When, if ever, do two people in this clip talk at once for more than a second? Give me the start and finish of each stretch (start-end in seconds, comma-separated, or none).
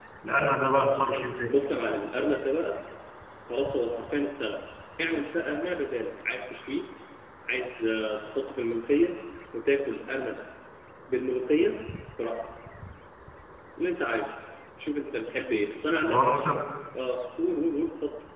none